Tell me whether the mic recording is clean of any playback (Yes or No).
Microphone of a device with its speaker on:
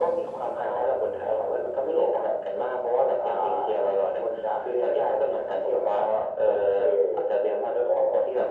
No